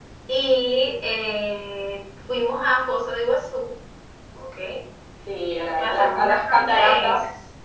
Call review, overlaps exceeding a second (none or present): present